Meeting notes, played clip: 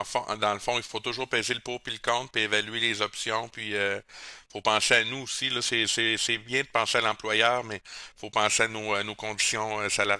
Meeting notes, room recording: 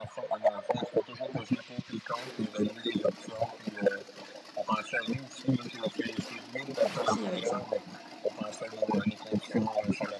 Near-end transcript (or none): y a pas de souci avec ça.